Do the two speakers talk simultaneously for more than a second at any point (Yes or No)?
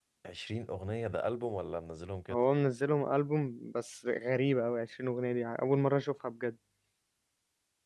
No